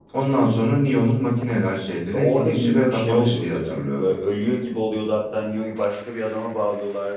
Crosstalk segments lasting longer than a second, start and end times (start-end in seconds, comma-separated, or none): 2.1-4.1